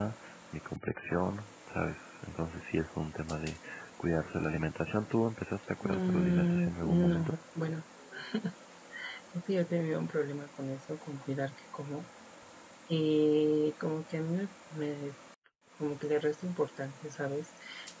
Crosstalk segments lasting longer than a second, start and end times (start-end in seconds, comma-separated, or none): 5.8-7.3